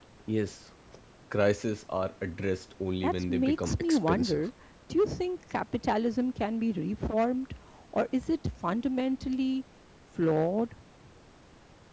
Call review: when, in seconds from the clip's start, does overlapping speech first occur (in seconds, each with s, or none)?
3.0 s